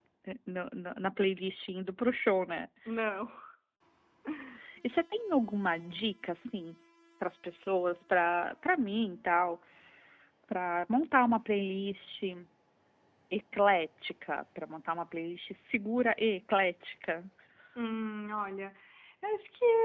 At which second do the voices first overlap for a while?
none

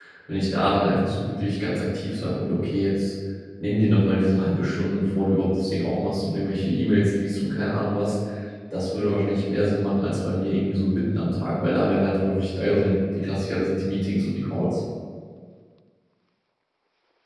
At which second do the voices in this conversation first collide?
none

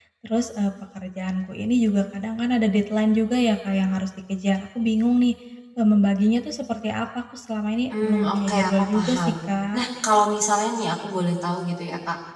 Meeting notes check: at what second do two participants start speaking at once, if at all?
7.9 s

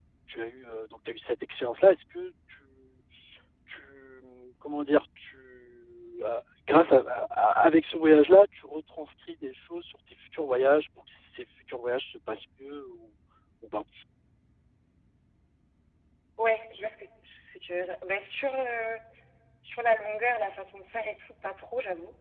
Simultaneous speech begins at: none

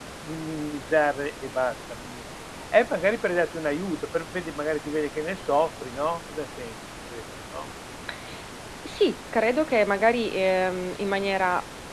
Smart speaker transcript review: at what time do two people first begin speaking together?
none

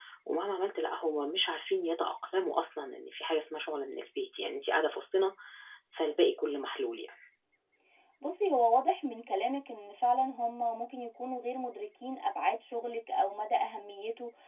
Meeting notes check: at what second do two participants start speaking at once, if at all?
none

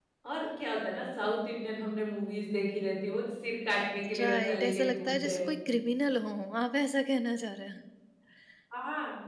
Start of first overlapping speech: 4.1 s

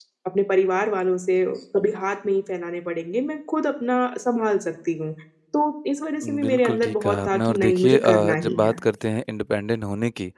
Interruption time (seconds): 6.4 s

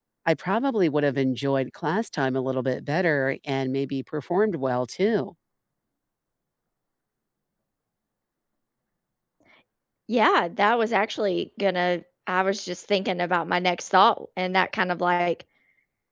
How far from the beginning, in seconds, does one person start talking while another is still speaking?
none

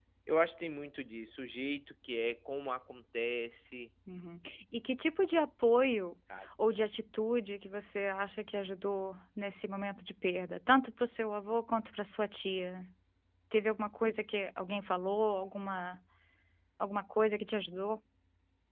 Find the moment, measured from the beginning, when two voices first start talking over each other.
none

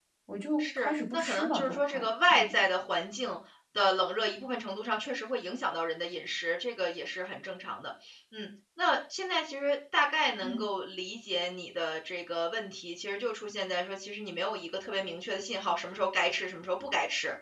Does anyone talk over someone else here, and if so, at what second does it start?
0.6 s

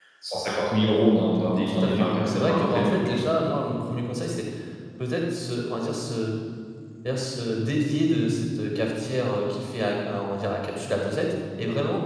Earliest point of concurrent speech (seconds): 1.6 s

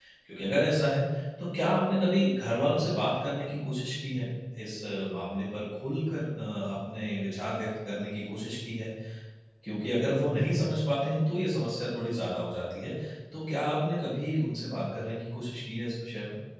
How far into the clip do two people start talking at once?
none

